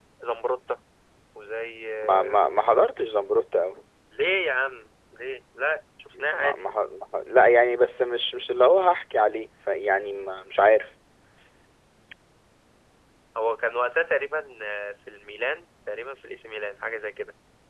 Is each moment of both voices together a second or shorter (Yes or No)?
Yes